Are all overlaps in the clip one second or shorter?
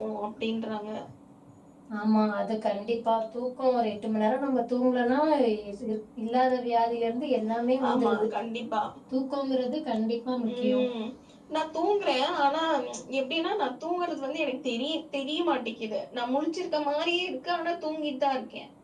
Yes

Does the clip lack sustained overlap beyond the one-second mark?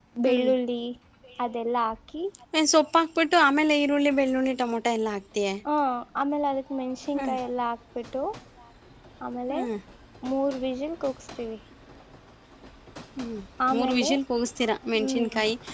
Yes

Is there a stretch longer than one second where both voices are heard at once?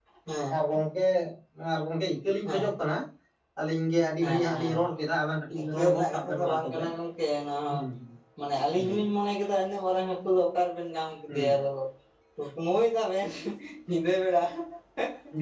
Yes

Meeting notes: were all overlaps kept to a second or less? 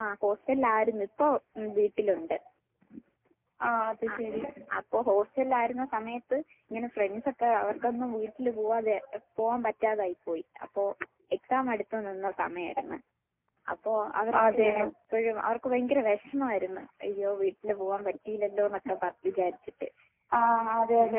Yes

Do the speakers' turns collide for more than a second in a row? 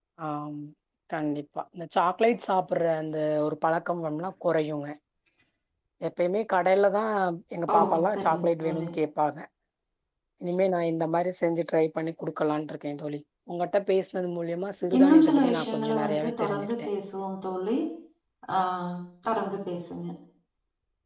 Yes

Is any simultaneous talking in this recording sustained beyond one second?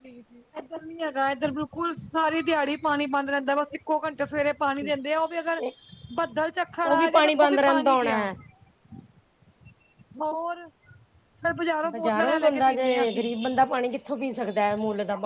Yes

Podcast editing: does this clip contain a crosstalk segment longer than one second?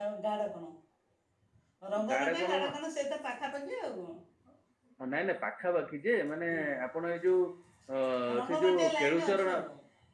Yes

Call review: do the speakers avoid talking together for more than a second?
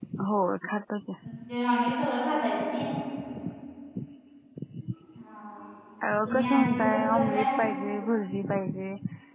No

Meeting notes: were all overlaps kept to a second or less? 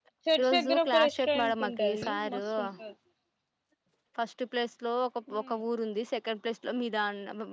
No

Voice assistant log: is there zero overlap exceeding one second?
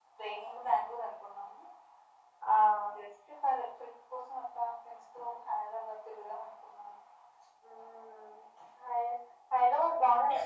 Yes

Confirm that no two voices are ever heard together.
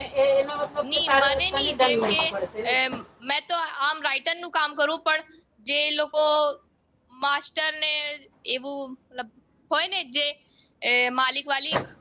No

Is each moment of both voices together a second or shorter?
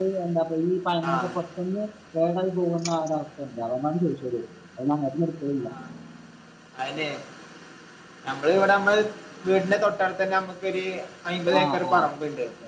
Yes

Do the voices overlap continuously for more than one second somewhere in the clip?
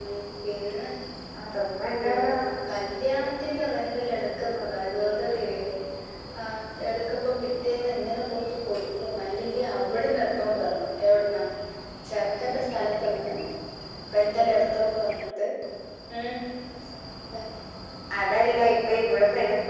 No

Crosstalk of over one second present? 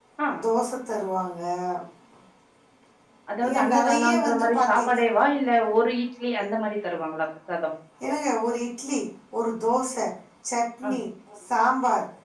Yes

